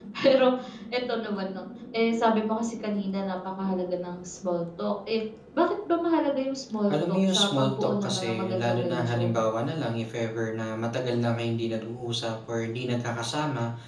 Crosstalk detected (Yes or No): Yes